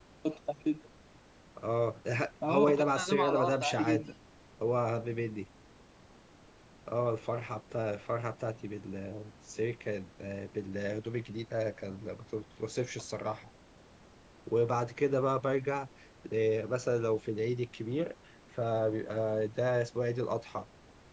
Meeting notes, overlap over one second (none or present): present